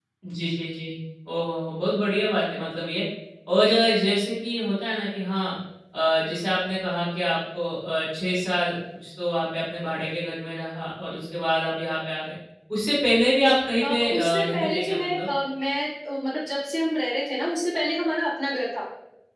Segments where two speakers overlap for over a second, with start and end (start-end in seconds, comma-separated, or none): 13.8-15.3